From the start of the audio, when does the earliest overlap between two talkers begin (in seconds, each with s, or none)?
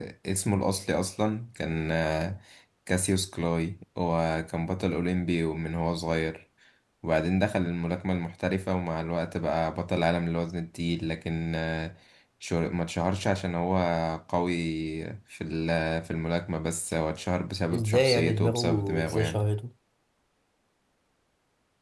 17.7 s